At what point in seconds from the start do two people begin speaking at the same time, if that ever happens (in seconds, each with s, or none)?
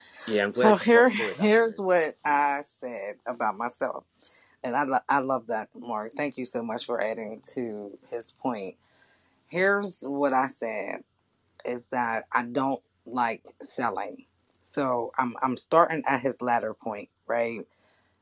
0.5 s